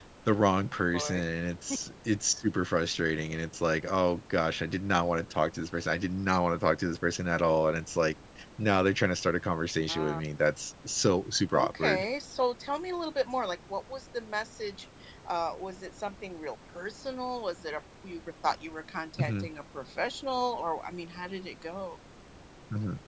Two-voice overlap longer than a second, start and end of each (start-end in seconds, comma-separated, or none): none